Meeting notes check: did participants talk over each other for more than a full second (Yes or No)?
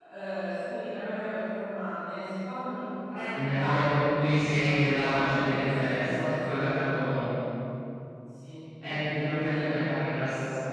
Yes